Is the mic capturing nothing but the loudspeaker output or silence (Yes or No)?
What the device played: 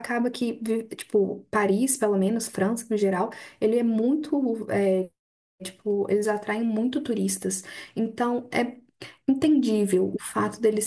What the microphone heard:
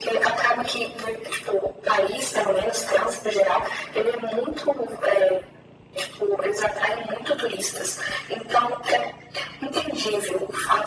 Yes